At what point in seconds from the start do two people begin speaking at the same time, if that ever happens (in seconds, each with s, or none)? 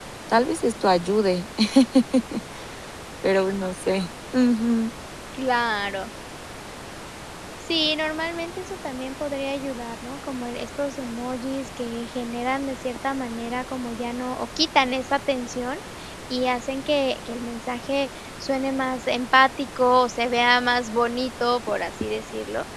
none